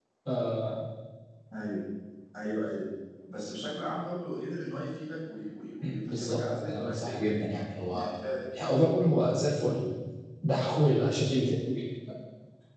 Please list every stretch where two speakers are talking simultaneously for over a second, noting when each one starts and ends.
6.0-8.1

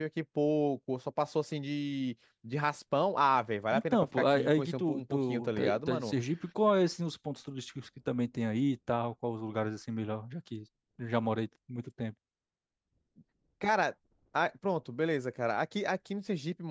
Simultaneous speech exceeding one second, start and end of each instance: 3.7-6.1

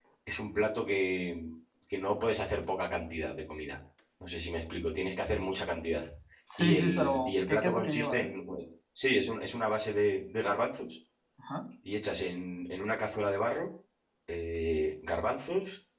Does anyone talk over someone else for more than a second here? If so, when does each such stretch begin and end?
6.6-8.3

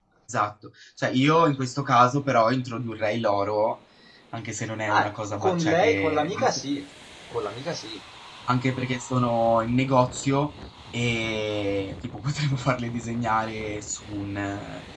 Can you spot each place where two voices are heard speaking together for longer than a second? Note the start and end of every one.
4.9-6.8

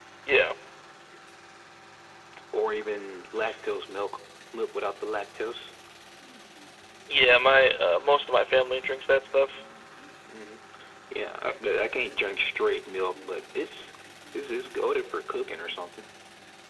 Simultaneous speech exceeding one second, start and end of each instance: none

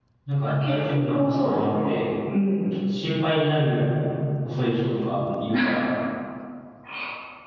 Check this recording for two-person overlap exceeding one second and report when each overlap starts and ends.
0.6-1.9

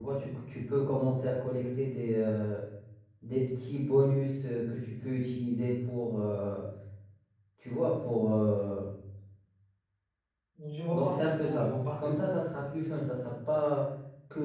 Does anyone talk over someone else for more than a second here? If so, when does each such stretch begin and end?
10.9-12.3

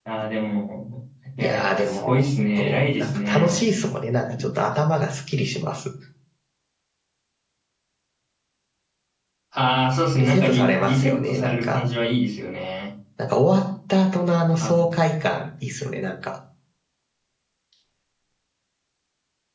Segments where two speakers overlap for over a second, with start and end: 1.4-3.6, 10.2-11.8

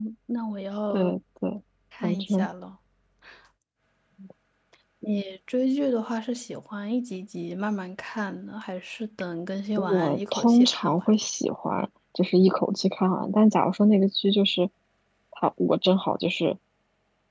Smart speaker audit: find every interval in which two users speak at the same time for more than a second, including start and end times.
9.8-11.1

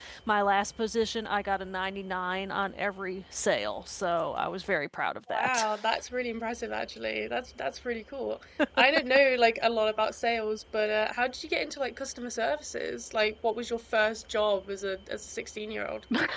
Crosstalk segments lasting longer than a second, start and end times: none

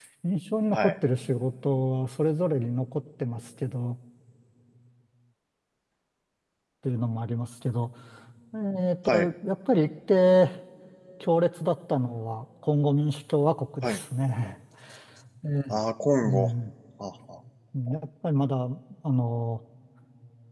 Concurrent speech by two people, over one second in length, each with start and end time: none

